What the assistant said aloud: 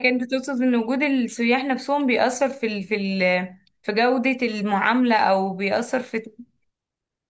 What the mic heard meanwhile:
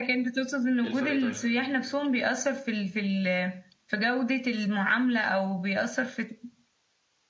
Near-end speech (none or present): present